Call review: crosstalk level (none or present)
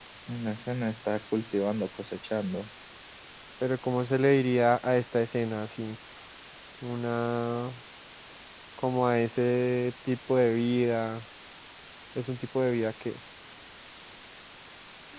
none